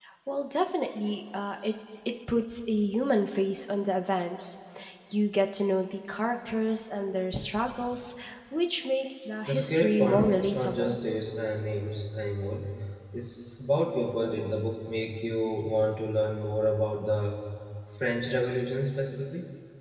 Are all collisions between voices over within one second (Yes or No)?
No